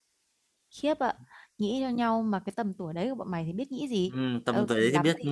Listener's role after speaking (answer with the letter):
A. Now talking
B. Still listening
A